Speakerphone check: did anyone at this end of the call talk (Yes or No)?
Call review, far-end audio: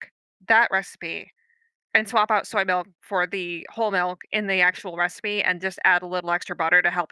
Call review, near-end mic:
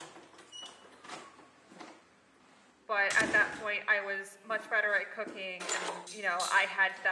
Yes